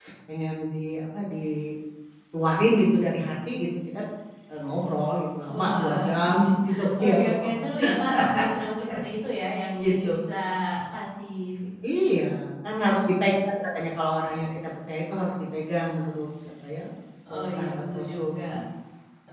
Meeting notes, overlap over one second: present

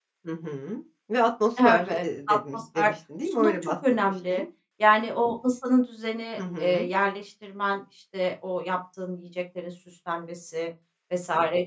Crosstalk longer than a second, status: present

